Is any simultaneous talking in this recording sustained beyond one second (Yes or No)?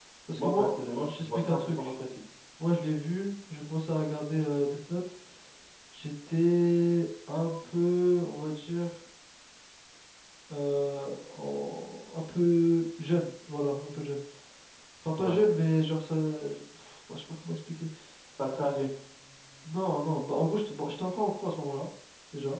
Yes